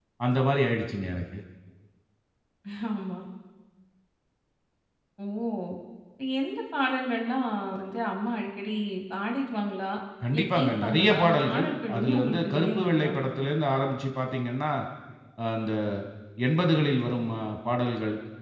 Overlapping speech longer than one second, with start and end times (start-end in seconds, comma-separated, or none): 10.3-13.1